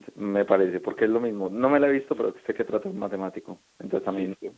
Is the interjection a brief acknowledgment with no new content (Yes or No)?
No